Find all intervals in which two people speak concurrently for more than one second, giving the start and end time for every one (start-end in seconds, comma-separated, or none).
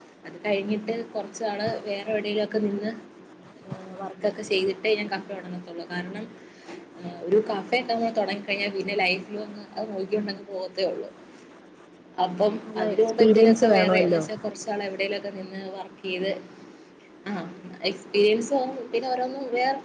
12.7-14.2